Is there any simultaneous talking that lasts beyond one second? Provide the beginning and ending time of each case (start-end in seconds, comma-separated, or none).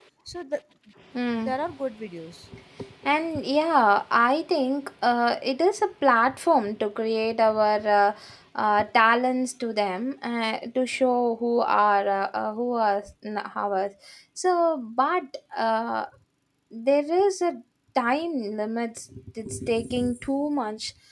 none